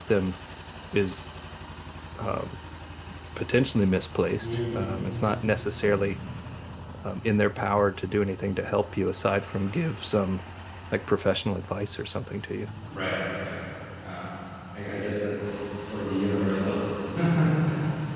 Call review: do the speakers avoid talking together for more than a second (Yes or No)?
Yes